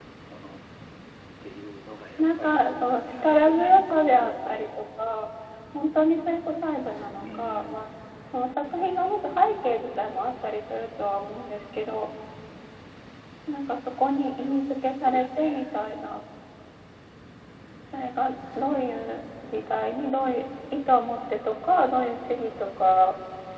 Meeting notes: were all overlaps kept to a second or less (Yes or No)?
No